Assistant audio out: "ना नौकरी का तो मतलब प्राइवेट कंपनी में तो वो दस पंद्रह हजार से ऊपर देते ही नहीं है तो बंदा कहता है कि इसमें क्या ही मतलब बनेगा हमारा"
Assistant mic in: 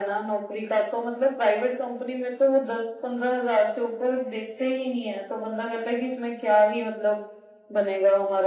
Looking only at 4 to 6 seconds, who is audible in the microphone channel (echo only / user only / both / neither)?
echo only